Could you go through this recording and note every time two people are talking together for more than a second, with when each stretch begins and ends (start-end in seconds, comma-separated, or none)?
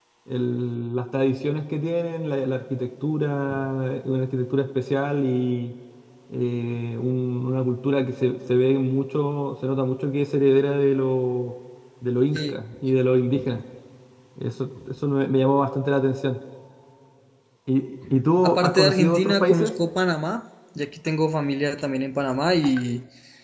18.4-19.7